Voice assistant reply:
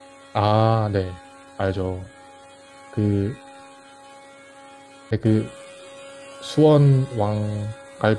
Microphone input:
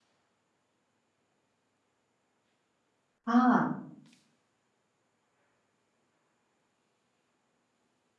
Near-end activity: present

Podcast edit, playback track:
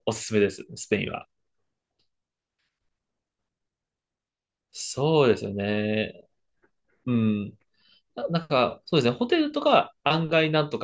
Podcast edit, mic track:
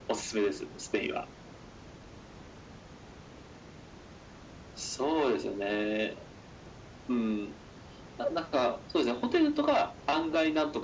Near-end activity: none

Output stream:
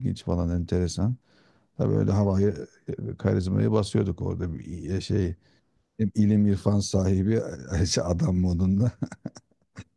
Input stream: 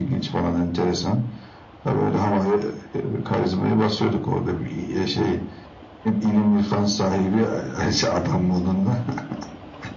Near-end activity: none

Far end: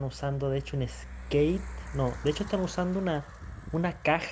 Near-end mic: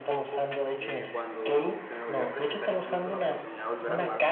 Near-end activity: present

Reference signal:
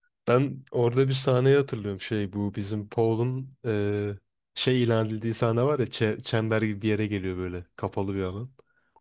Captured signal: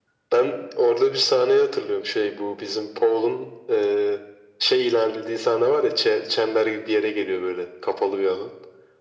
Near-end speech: none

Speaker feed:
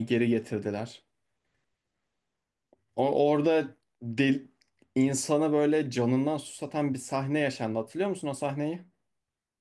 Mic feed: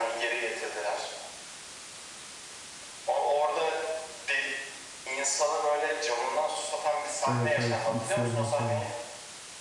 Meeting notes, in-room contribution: present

